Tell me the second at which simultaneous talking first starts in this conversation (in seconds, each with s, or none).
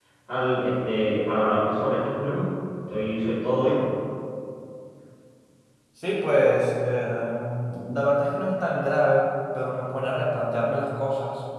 none